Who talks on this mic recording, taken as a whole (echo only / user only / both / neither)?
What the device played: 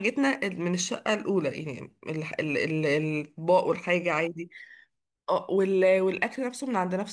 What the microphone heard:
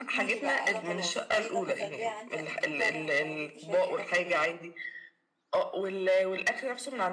both